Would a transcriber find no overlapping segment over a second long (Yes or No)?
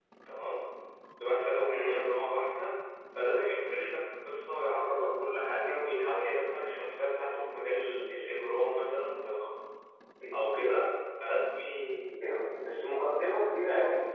Yes